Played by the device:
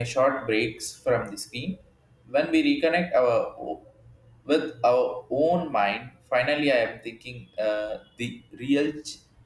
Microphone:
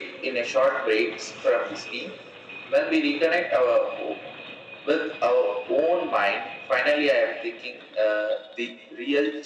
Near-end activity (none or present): none